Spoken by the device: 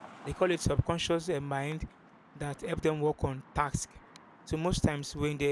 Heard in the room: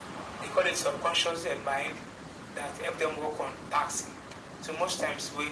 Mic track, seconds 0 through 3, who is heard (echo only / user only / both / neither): echo only